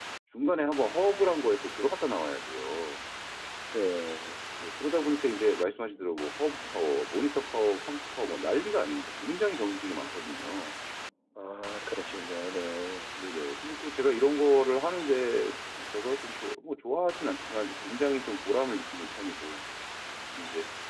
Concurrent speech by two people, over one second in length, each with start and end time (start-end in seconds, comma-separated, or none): none